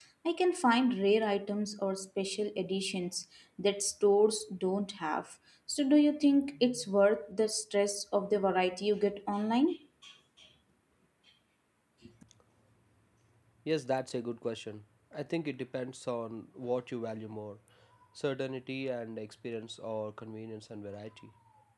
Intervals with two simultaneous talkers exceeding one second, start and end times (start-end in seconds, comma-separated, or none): none